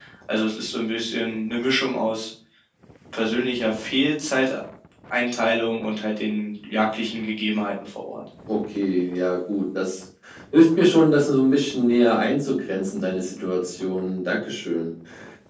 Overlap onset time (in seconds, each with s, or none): none